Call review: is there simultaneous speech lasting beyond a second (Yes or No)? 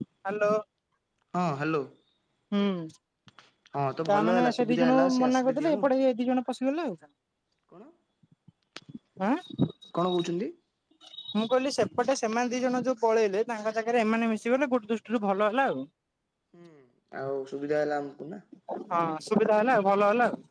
Yes